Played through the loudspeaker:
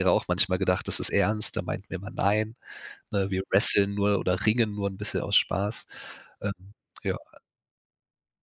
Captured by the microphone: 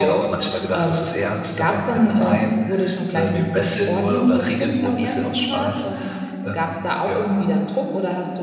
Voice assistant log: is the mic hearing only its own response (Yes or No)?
No